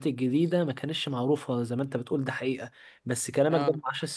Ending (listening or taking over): listening